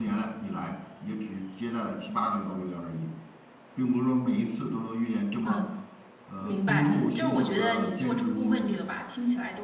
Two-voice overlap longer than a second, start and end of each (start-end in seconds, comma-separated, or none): 6.4-8.7